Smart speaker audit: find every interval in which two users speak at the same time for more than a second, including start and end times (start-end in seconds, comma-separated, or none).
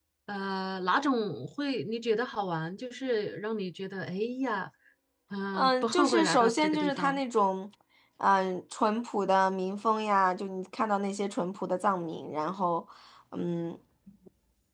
5.5-7.2